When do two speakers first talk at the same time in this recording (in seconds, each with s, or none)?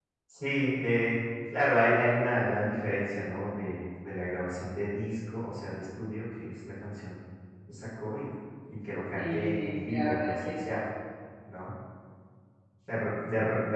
9.2 s